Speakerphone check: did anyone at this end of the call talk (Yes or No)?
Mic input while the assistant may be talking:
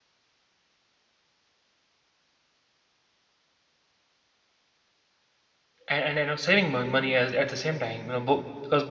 Yes